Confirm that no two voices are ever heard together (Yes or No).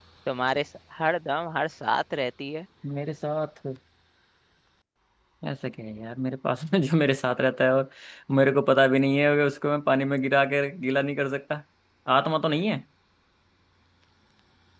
Yes